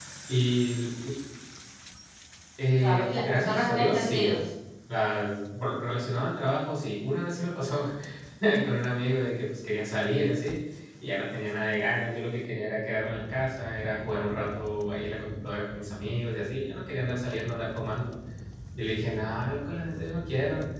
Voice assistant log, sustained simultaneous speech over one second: present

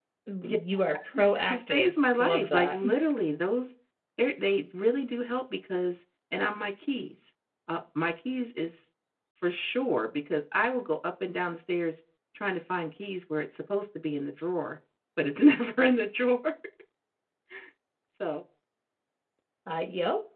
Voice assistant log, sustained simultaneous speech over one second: present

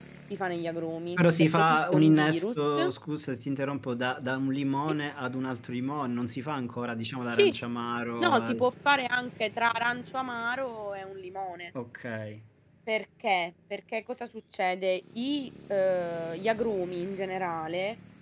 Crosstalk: present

